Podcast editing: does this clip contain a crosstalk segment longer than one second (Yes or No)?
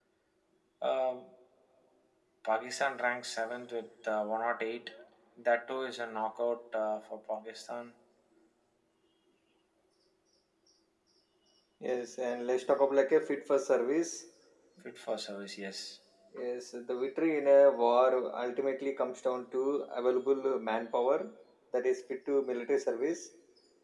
No